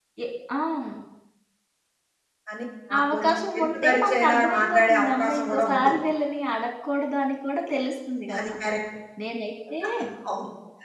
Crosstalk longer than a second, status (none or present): present